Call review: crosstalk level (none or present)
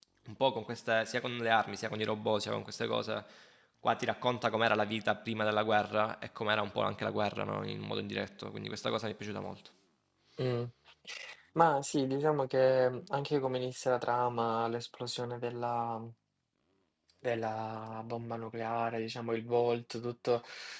none